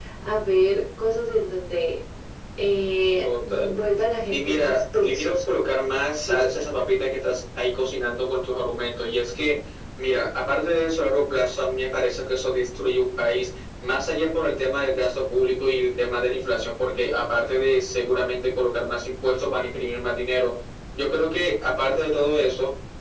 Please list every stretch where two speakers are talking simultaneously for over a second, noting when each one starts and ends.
4.3-5.5

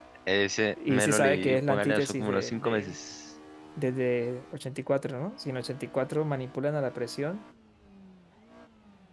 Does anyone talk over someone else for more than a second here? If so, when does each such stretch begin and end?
0.9-3.0

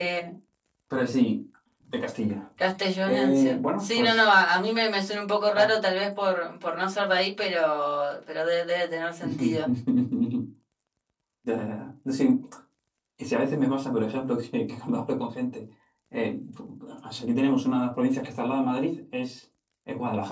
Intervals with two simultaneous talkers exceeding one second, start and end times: 3.0-4.3

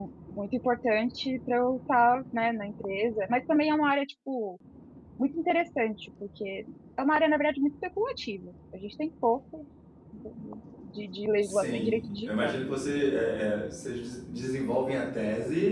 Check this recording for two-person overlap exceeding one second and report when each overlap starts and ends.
11.4-12.6

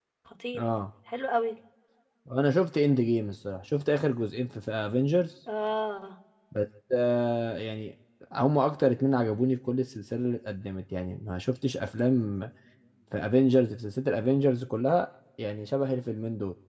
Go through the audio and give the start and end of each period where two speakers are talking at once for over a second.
none

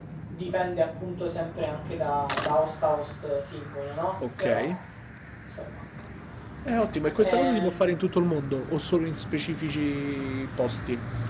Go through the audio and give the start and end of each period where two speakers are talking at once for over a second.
none

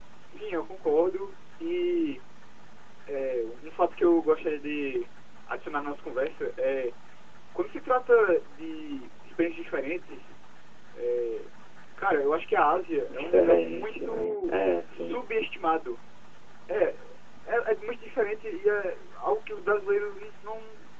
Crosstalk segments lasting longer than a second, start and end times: 13.1-14.5

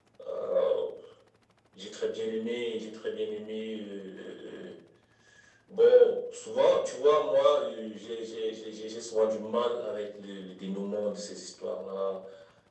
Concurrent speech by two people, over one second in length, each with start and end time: none

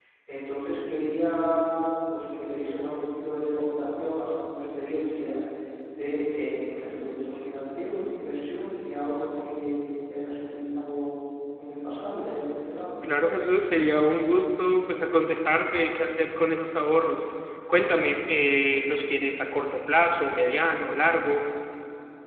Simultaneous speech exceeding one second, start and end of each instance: none

